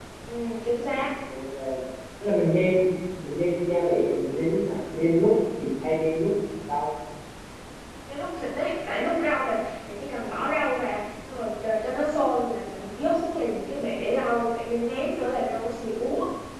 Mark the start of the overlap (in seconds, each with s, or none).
none